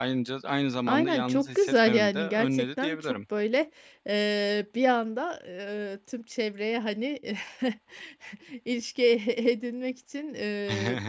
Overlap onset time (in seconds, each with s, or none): 0.9 s